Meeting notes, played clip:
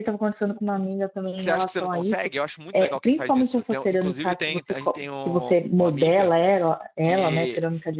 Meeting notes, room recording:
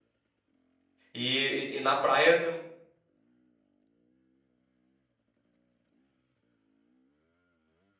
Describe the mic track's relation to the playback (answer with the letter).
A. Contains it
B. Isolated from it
B